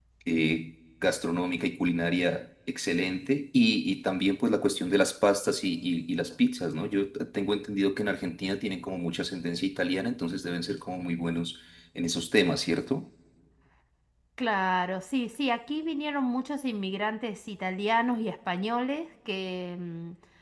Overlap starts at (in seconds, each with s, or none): none